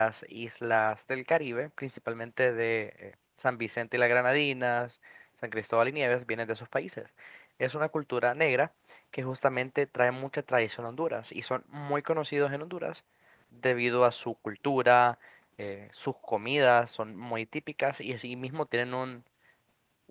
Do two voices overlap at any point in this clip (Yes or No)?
No